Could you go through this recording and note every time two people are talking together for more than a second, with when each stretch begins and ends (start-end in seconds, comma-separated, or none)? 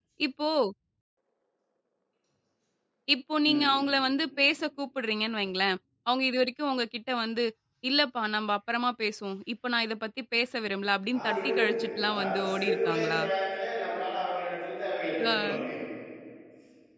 11.2-13.2